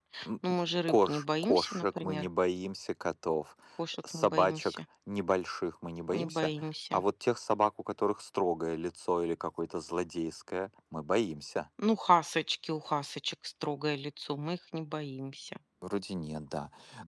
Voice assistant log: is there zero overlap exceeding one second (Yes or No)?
No